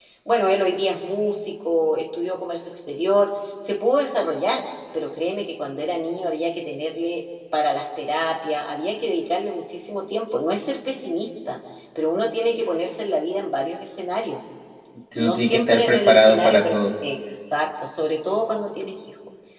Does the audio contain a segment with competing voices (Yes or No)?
Yes